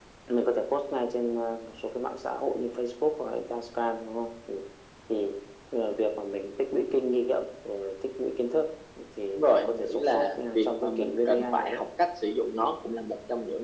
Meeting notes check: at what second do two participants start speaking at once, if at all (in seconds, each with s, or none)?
9.3 s